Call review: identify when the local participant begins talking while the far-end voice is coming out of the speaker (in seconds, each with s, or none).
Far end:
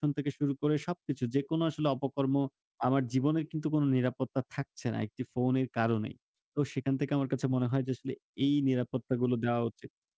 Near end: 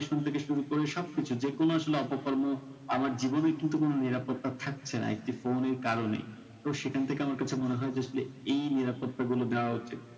none